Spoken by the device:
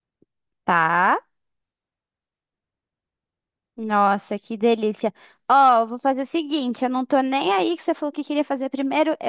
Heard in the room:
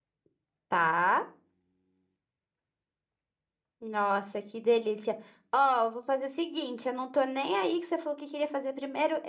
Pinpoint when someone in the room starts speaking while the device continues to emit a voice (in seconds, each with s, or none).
none